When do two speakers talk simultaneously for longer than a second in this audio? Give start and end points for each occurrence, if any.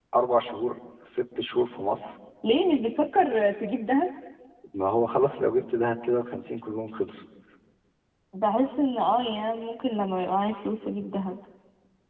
none

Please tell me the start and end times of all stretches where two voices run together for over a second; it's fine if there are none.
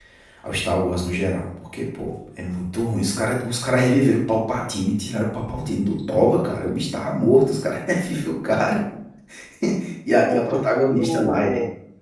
10.2-11.5

